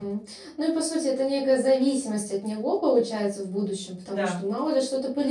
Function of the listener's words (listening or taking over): listening